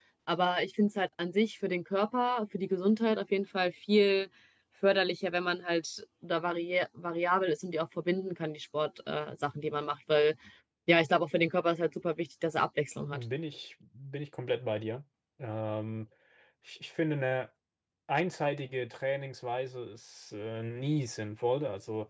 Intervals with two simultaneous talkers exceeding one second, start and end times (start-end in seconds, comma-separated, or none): none